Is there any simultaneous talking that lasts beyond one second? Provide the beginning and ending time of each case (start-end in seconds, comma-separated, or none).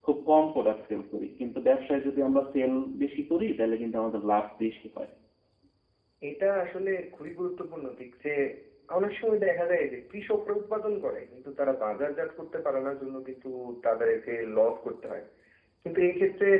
none